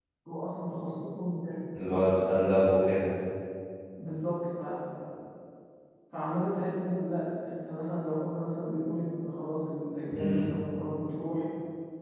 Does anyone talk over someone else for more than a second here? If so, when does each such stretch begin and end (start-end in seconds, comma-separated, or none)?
none